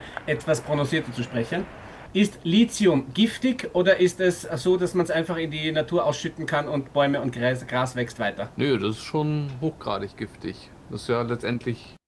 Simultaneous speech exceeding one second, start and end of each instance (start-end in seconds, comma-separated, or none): none